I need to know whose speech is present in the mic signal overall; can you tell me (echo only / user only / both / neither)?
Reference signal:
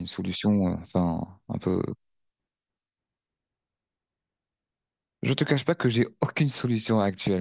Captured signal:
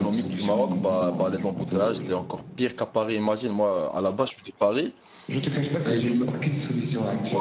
both